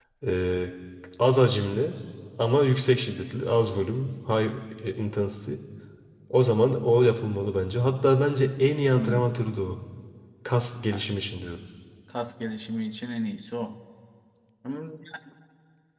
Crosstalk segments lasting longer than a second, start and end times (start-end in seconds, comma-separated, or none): none